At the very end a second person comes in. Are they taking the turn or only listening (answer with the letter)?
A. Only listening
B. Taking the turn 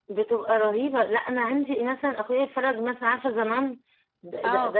B